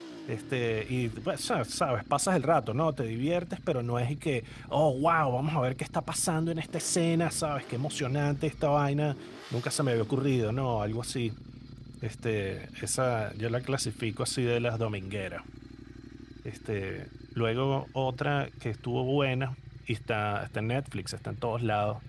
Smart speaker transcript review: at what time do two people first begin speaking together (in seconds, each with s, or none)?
none